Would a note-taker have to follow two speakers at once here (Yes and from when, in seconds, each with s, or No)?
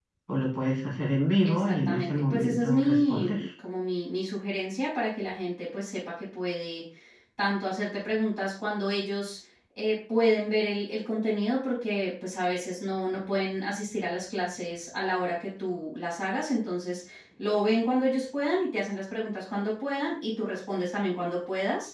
Yes, from 1.4 s